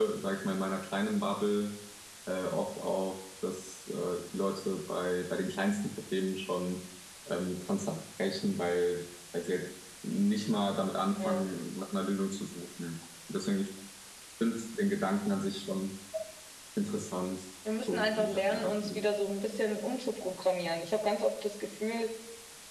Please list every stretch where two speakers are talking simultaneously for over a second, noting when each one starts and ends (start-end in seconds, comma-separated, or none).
17.8-19.1